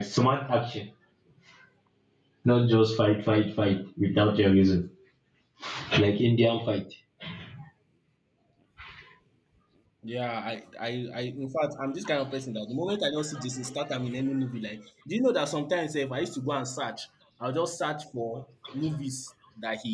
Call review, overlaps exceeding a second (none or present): none